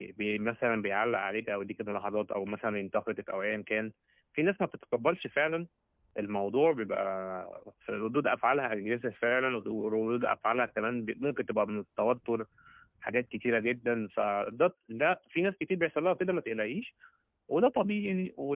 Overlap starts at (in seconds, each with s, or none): none